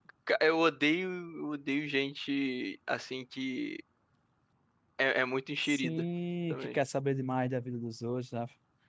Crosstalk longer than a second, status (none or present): none